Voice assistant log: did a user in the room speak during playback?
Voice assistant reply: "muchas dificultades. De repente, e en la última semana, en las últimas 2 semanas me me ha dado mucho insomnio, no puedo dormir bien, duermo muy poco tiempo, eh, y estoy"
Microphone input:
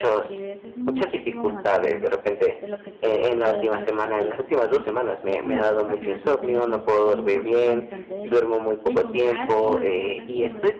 Yes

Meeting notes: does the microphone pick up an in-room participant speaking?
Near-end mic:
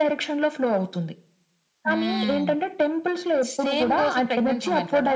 No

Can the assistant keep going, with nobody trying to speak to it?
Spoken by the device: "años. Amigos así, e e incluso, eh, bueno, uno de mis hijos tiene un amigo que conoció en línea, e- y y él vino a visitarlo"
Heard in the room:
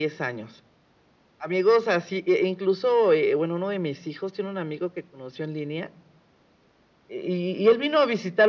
Yes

